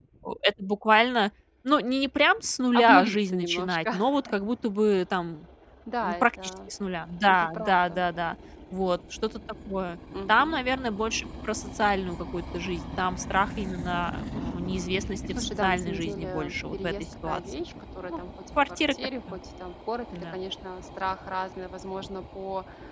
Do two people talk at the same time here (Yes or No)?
Yes